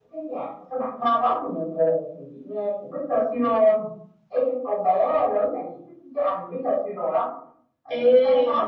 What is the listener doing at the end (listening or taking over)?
listening